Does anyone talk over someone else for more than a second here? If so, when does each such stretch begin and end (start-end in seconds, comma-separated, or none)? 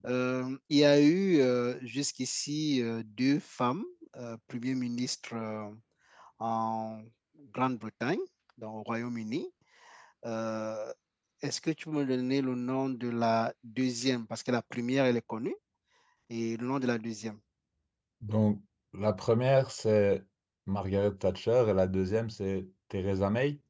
none